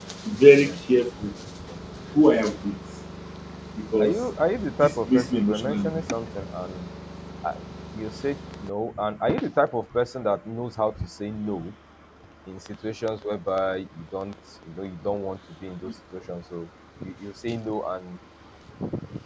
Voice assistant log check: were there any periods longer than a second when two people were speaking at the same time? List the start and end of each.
4.8-6.0

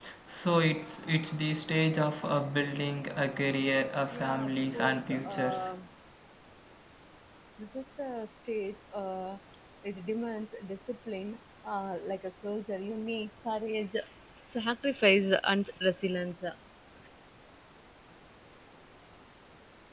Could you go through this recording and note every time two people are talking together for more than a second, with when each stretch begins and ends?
4.1-5.7

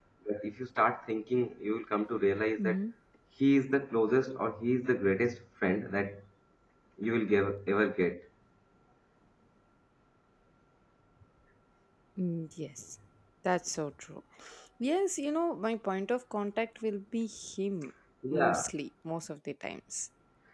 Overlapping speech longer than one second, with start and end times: none

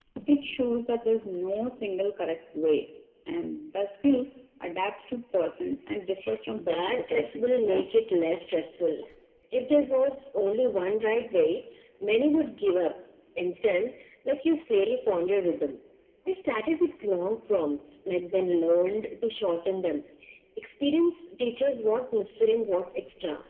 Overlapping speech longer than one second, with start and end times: 6.5-7.9

